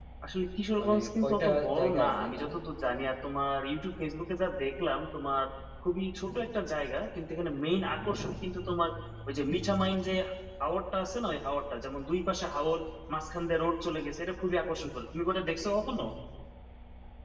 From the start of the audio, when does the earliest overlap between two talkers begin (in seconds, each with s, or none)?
0.8 s